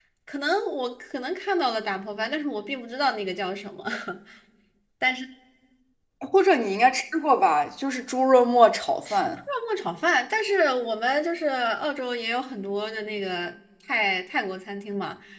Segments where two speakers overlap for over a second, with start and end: none

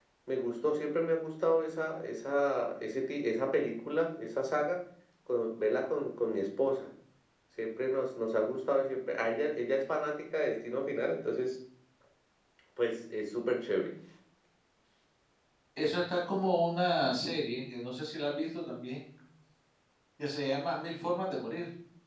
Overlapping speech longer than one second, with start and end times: none

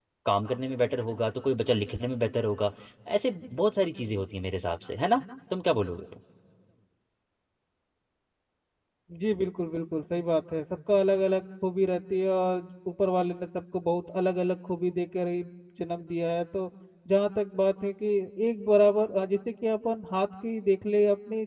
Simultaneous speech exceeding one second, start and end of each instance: none

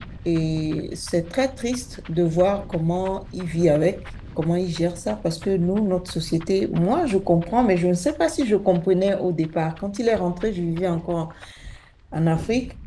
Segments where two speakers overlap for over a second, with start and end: none

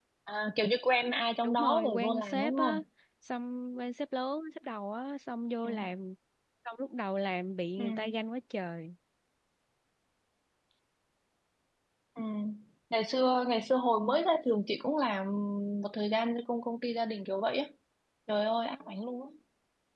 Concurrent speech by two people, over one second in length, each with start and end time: 1.4-2.8

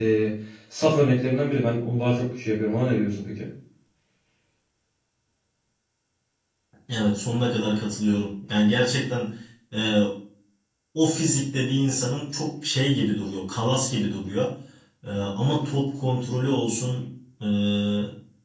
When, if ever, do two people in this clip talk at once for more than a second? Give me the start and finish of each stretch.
none

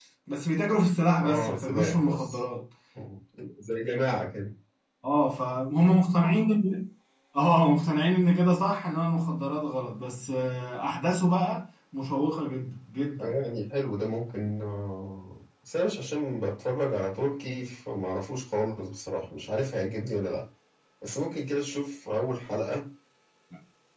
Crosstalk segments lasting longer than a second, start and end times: 1.2-2.4

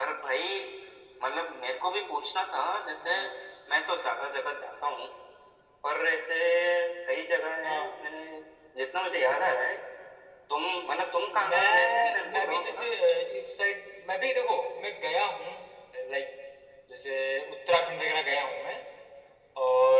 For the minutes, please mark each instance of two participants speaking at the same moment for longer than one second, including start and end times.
11.3-12.9

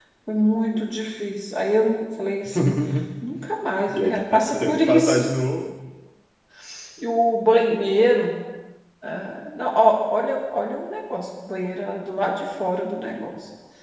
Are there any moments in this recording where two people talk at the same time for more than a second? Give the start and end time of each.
3.9-5.2

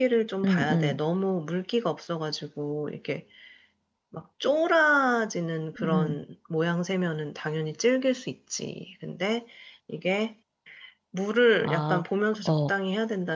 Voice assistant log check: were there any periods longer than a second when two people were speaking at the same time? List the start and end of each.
none

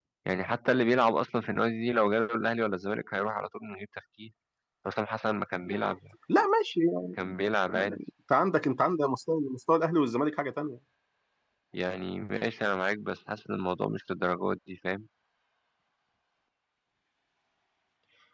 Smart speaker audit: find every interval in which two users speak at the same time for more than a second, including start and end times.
none

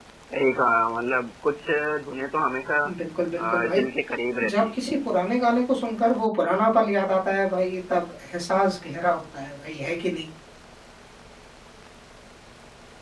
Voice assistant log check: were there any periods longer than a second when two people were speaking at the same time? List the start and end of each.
none

